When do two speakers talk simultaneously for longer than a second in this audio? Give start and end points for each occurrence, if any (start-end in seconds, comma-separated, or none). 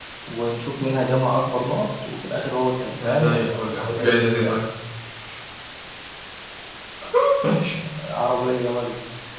2.9-4.5